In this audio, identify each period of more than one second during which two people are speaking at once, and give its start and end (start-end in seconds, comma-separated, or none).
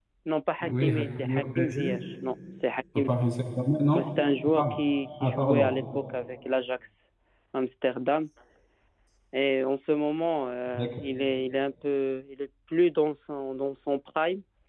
0.6-2.0